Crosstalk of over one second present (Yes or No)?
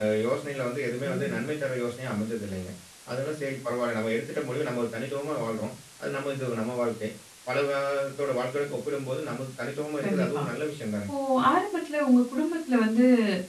No